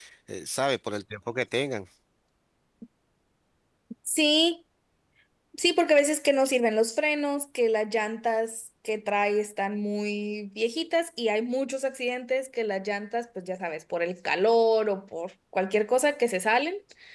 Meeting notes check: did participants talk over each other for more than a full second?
No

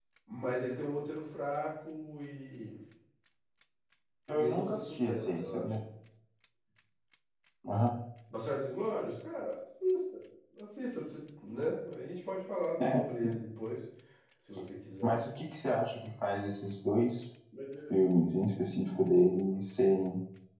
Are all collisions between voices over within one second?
No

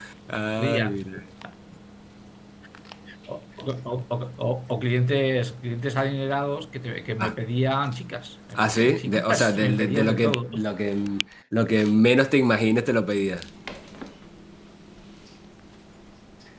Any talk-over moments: Yes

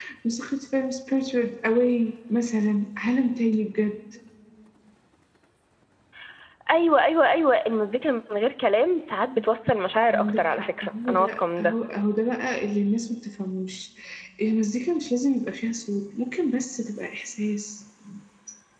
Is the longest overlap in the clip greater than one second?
Yes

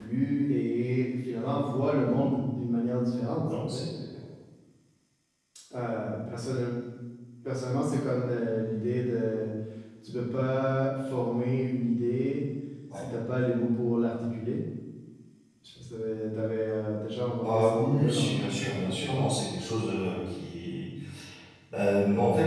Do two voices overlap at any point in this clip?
Yes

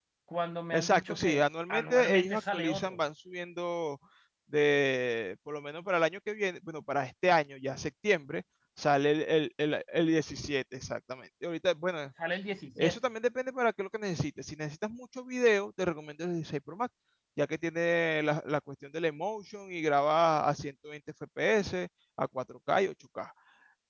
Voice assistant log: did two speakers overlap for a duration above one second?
Yes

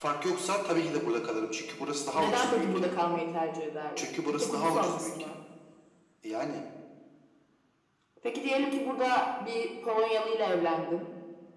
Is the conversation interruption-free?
No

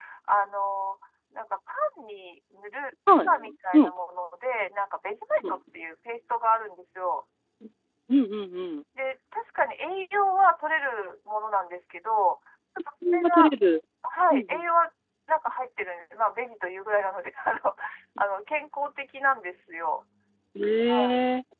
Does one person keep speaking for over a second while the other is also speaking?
No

